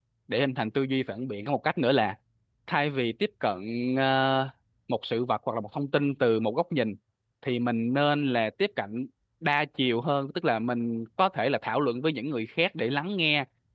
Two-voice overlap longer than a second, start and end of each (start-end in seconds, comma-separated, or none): none